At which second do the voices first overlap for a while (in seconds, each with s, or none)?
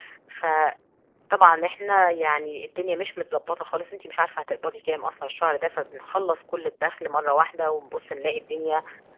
none